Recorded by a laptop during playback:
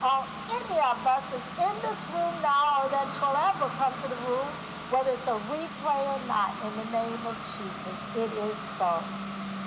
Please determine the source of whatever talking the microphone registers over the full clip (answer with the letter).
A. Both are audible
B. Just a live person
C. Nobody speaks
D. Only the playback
D